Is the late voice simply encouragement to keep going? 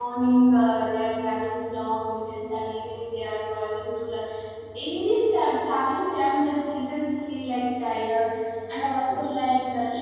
Yes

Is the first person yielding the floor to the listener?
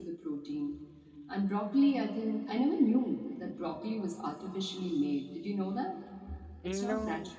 No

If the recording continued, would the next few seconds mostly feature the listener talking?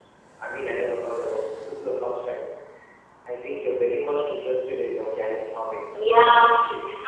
Yes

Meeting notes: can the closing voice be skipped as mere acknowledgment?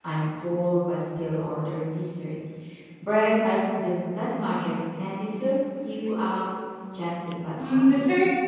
No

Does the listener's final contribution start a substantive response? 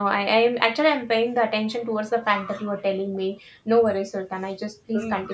Yes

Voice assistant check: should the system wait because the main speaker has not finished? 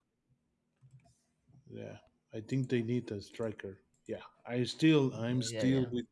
No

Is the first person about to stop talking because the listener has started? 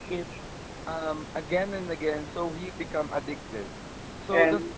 Yes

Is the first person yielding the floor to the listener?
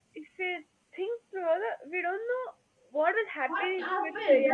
Yes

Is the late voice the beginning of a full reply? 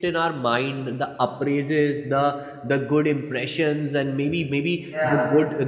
No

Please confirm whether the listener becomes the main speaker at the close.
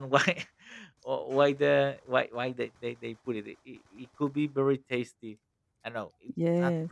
No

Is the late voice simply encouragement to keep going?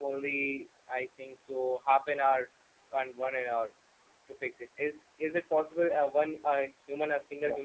Yes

